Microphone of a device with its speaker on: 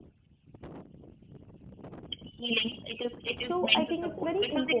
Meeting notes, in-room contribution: present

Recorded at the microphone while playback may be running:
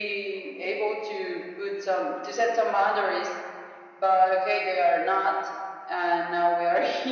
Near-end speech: none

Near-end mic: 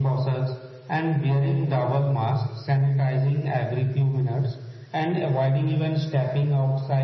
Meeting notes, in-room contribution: none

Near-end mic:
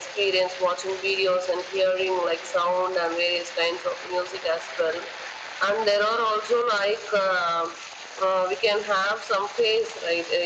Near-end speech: none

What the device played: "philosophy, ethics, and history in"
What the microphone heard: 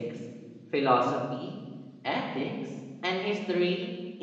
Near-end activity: none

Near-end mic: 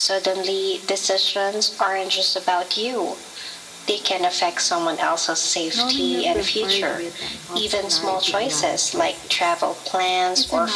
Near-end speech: present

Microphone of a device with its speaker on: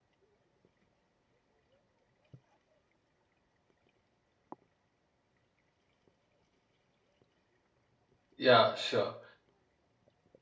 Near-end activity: present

